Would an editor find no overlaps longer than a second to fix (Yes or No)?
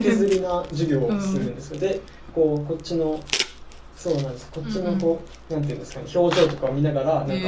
Yes